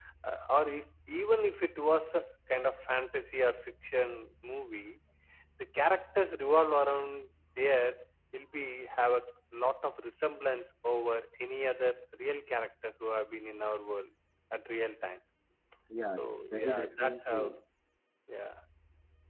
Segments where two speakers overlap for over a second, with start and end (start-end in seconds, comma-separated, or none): 16.2-17.4